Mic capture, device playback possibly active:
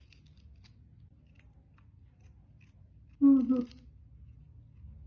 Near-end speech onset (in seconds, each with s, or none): 3.2 s